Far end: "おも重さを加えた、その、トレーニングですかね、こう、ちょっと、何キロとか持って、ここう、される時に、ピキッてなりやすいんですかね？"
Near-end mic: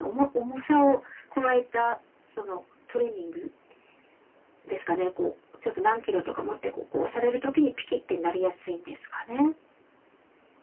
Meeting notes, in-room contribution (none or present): none